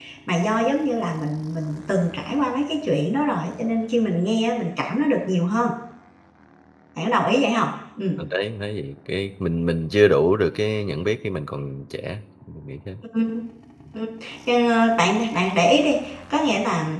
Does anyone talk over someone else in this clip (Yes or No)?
No